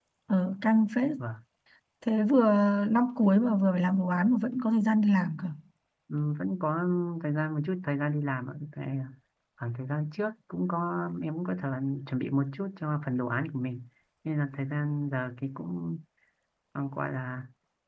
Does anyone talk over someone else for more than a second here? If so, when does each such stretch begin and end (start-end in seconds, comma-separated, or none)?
none